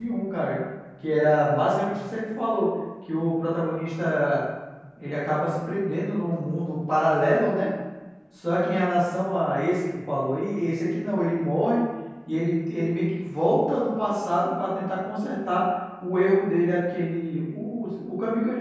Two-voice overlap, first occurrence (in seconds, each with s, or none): none